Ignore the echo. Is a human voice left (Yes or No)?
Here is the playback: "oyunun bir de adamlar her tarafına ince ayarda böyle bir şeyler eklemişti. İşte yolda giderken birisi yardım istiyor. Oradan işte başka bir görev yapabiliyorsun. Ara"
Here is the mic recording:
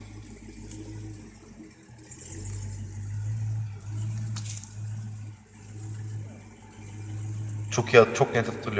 Yes